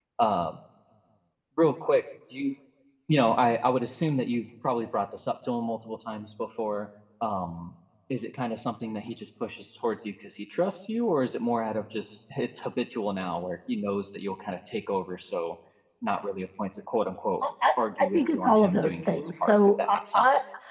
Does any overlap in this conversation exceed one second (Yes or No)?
Yes